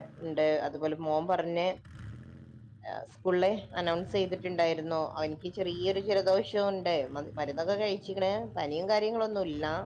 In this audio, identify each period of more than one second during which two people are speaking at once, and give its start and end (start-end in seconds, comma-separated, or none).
none